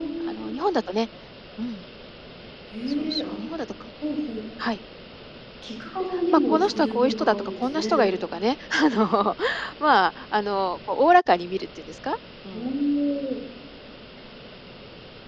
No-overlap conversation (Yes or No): No